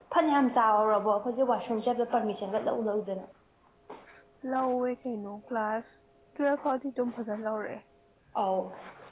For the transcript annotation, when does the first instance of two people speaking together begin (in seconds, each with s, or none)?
none